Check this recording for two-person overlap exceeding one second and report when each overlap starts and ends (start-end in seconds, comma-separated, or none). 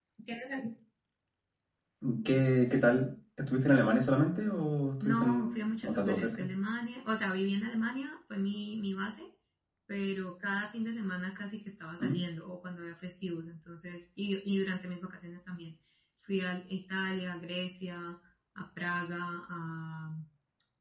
5.0-6.5